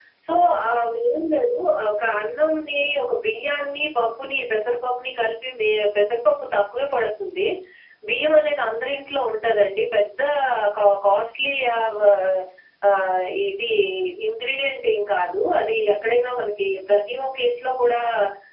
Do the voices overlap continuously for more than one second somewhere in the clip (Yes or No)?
No